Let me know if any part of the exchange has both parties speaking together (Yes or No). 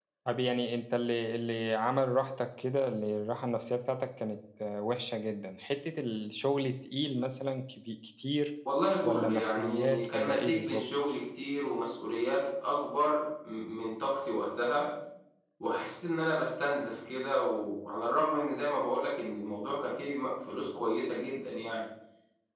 Yes